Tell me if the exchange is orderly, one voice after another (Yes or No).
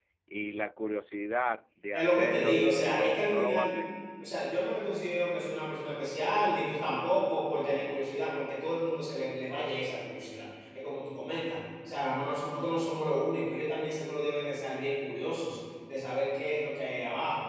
No